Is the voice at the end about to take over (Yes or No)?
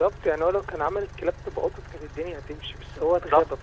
Yes